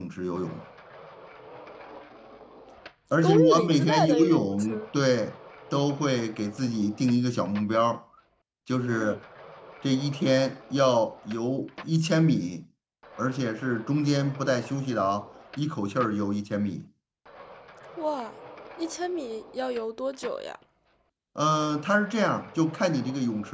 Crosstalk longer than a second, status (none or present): present